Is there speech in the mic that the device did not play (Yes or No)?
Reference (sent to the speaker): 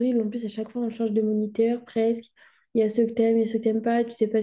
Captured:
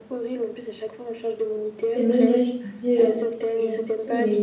Yes